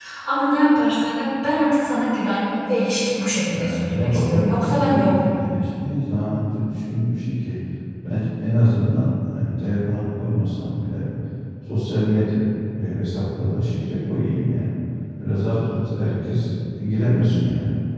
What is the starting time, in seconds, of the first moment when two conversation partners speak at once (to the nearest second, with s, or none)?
4 s